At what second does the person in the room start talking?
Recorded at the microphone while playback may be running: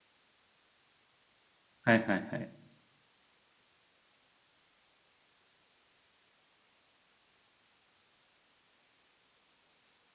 1.8 s

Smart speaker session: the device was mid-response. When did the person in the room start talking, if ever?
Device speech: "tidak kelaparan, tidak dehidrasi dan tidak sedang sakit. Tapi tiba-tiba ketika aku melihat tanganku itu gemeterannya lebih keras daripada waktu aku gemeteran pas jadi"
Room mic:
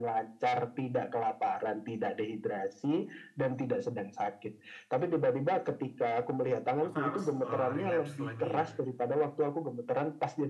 6.8 s

